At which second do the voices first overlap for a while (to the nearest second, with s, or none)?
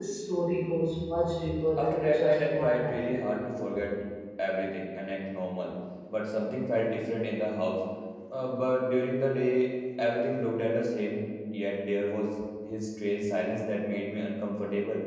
2 s